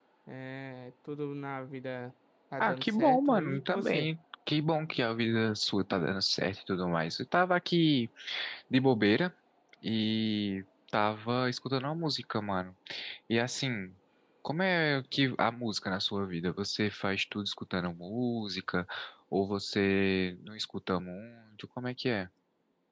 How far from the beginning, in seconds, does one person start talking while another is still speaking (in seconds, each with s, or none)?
2.6 s